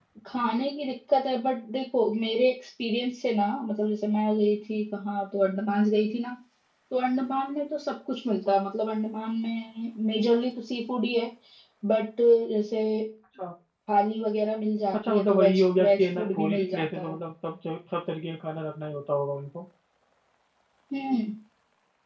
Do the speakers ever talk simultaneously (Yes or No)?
Yes